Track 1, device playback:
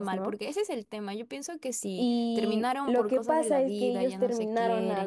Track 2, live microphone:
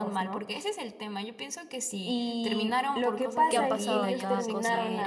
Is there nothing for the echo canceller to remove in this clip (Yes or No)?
No